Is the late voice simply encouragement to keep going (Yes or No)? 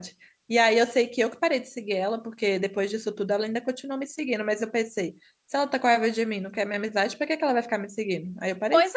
No